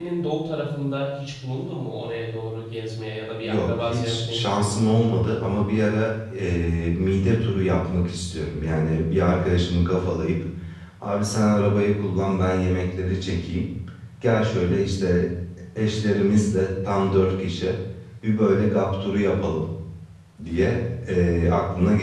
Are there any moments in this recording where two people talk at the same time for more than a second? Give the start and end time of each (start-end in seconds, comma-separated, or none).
3.4-4.8